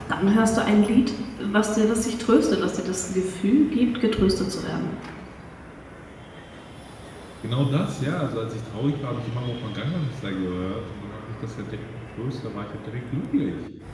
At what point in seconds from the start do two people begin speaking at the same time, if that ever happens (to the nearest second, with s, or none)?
none